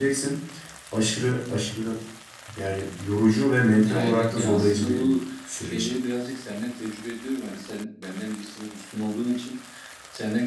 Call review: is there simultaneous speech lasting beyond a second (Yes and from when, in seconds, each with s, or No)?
Yes, from 3.8 s